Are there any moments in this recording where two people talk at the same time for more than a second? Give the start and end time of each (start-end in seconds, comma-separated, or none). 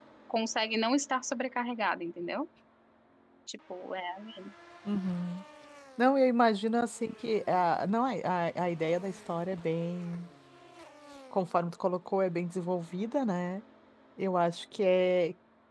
none